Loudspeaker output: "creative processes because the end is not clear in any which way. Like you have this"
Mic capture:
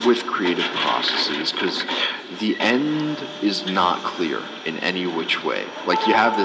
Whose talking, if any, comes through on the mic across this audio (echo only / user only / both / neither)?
echo only